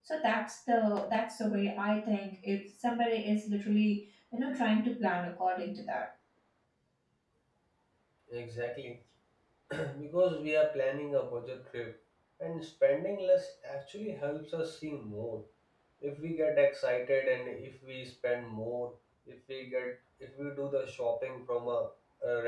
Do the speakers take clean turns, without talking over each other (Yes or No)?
Yes